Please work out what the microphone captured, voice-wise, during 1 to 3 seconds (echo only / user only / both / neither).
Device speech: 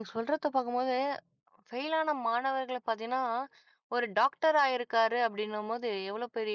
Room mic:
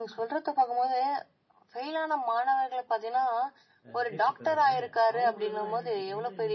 echo only